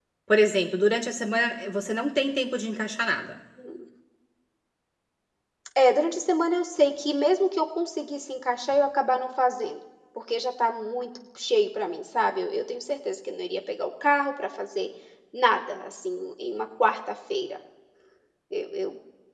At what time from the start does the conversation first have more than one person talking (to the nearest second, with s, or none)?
none